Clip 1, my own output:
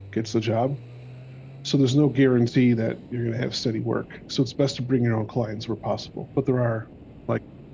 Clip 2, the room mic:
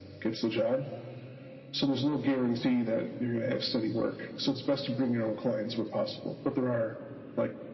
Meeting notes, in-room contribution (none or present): none